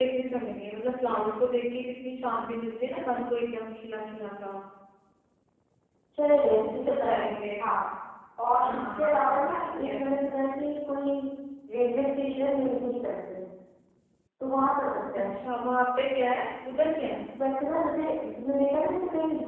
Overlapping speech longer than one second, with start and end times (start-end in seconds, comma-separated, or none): 8.6-10.1